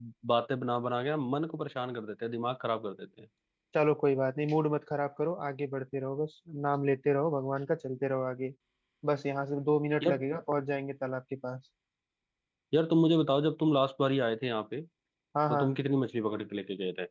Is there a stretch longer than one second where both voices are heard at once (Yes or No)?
No